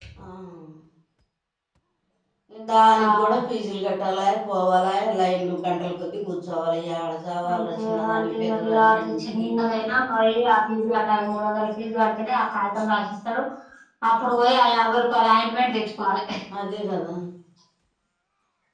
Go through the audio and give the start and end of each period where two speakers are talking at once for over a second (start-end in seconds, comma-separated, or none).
7.5-9.5